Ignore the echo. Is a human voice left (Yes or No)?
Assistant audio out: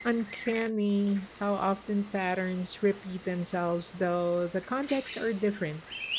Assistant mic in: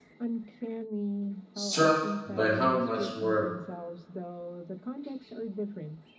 Yes